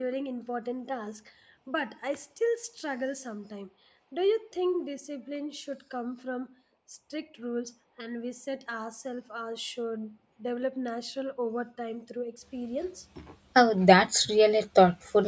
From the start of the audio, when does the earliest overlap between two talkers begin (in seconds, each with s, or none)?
none